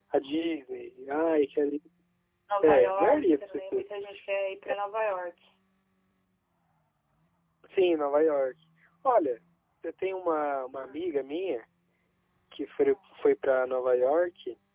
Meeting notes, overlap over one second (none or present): present